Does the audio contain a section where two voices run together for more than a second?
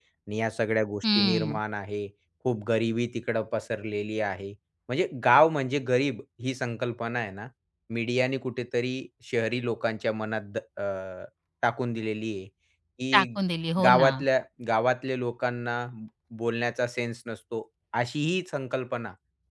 No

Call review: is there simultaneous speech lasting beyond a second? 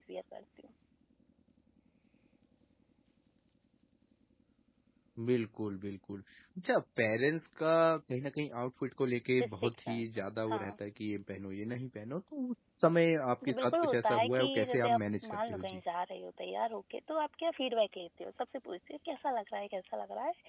Yes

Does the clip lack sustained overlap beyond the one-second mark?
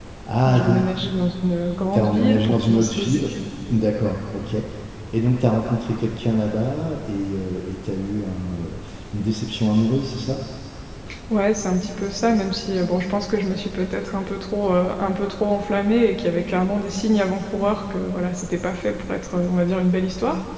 No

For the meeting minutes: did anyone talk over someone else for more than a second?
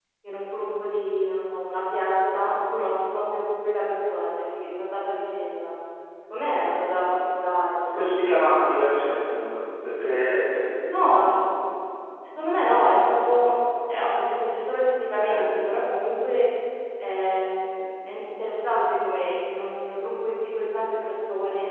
No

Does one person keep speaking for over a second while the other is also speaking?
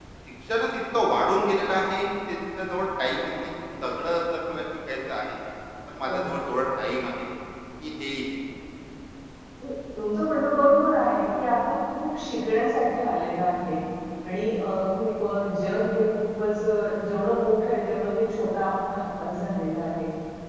No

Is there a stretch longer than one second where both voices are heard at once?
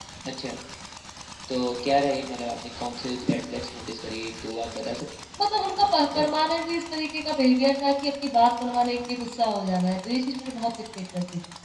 No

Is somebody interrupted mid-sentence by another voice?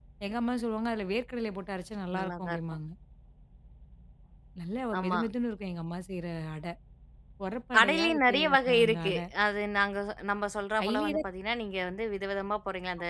Yes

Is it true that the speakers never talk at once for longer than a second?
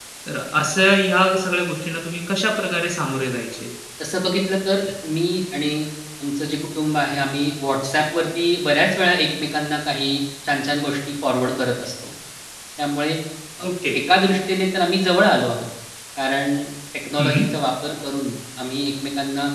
Yes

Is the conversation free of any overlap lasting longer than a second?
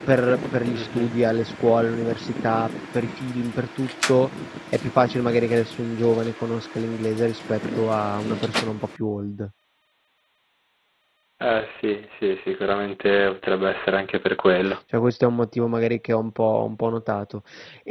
Yes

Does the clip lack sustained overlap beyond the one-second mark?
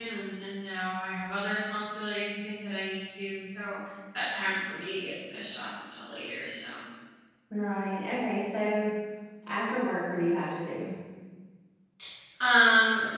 Yes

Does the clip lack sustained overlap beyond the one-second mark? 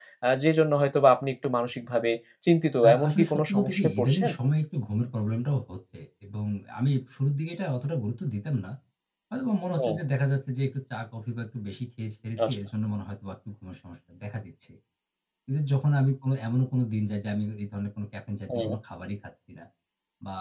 No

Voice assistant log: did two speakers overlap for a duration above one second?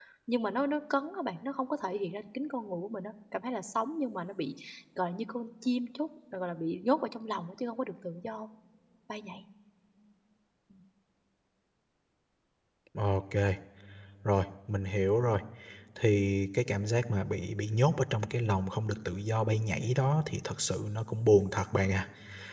No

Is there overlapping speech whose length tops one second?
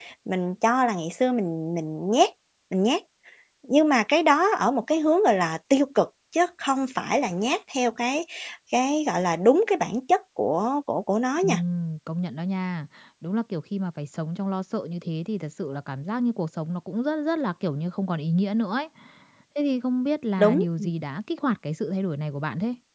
No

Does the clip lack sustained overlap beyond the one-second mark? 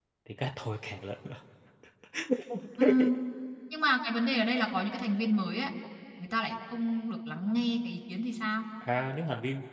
Yes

